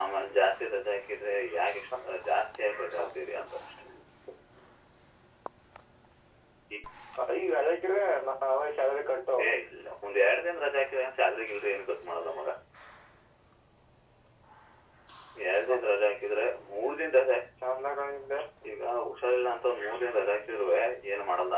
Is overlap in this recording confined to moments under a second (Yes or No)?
Yes